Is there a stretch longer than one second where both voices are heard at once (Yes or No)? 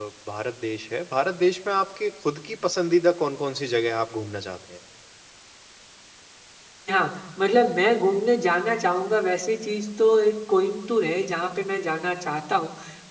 No